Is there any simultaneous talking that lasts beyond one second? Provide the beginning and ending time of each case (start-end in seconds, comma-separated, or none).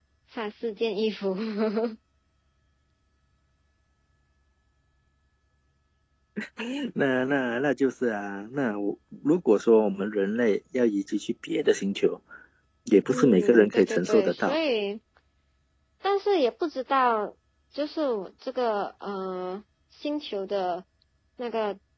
13.1-14.6